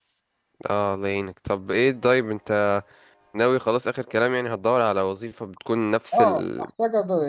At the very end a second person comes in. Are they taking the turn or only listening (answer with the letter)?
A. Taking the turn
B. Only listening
A